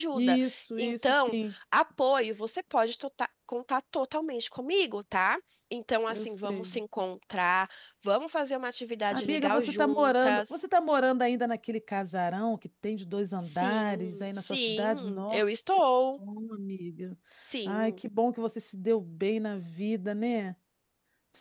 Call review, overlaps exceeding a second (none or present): present